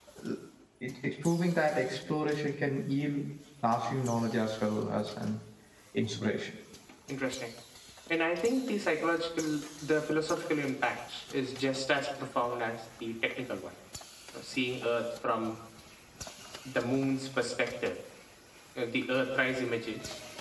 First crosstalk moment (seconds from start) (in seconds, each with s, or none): none